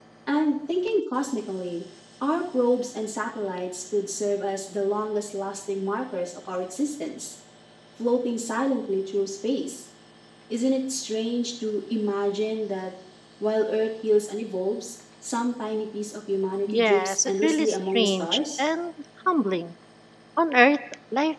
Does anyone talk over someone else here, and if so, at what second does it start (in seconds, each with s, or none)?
16.7 s